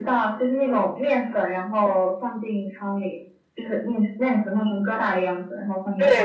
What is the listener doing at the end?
taking over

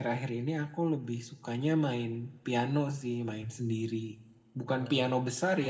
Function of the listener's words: listening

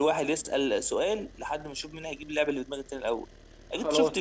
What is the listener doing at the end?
listening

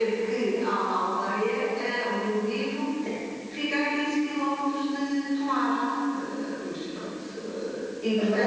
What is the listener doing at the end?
listening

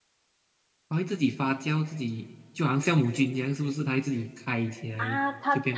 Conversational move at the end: taking over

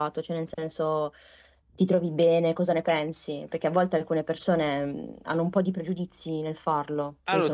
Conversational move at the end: taking over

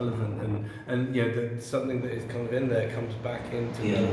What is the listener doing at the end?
taking over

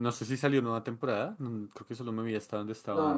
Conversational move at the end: taking over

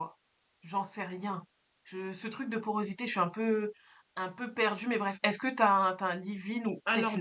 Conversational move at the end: taking over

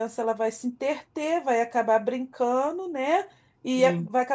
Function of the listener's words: listening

